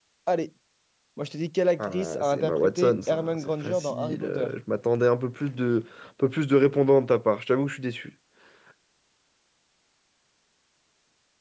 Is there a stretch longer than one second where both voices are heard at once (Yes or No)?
Yes